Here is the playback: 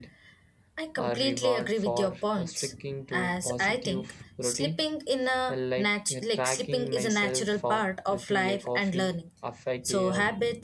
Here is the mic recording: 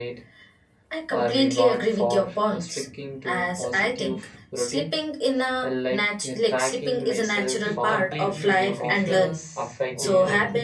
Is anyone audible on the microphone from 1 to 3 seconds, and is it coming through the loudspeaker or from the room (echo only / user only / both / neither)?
echo only